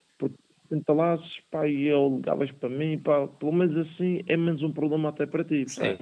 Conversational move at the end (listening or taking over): taking over